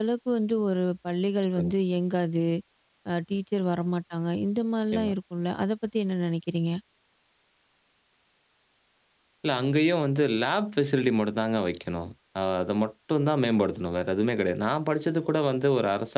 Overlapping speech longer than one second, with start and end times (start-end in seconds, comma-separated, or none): none